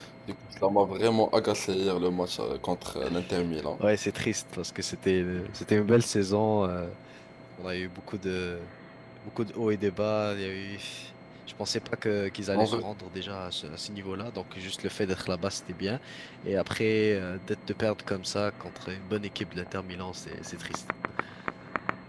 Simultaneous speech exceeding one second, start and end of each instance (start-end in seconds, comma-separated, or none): none